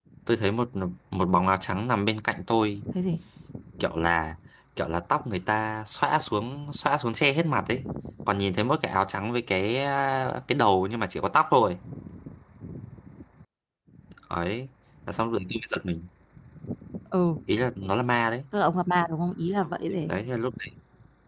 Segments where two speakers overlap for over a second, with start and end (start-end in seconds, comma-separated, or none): none